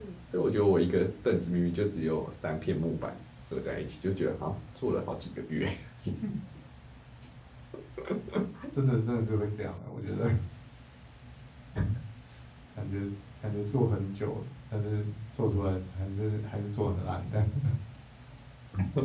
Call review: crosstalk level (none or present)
none